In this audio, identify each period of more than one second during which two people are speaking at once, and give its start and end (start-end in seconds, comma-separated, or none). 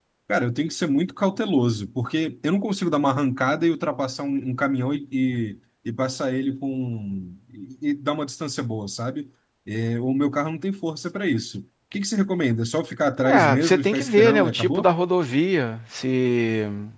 13.3-14.9